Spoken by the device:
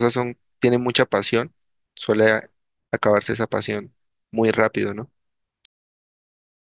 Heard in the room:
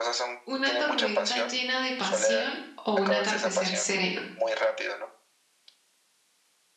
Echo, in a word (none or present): present